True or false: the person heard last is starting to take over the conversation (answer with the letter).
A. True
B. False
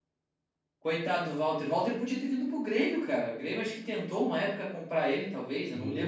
A